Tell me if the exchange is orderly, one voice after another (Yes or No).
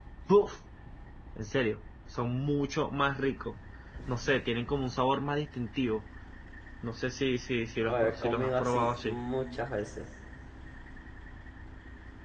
No